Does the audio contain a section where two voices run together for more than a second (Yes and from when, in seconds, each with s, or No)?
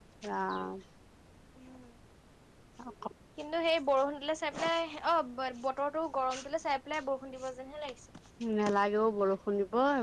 No